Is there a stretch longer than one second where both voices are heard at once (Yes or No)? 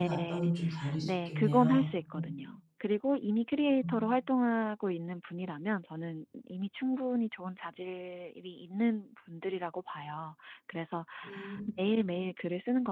Yes